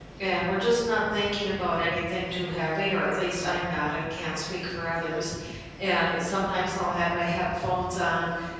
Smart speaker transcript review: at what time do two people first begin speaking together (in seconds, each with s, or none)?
none